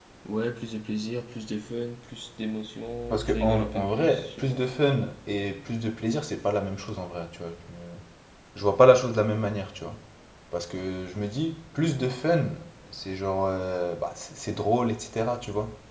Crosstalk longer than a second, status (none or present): present